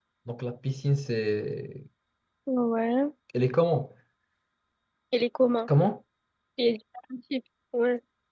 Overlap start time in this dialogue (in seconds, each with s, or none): none